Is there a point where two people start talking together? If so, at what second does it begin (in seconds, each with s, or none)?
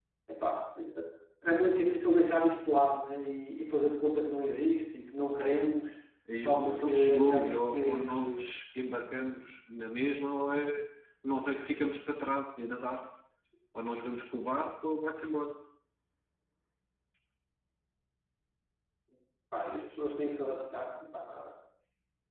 6.3 s